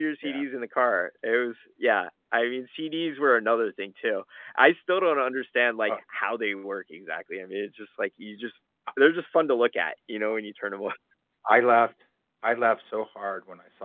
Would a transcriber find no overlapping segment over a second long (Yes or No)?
Yes